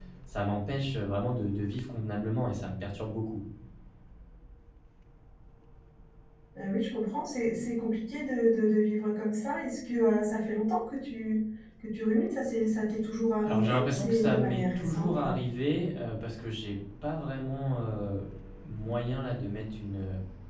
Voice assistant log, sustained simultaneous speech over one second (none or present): present